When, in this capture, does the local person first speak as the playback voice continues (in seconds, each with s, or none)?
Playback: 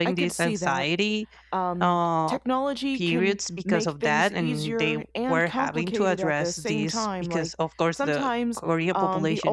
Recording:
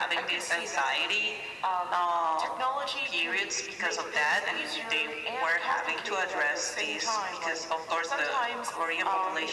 none